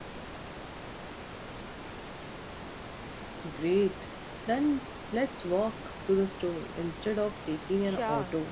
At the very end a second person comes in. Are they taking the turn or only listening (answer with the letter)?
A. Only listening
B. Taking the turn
B